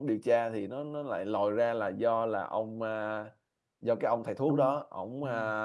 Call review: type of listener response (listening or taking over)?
listening